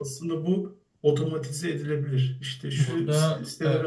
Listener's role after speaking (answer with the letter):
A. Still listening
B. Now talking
A